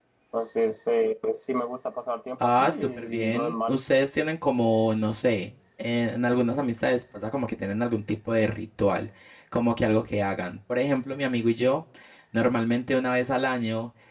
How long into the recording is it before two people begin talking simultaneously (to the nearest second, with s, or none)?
2 s